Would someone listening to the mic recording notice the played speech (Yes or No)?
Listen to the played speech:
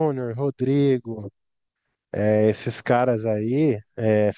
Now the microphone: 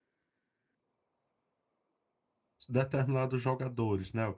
No